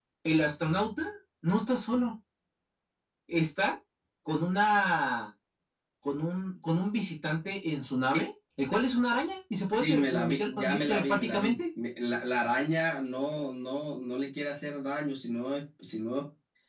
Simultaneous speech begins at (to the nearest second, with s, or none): 10 s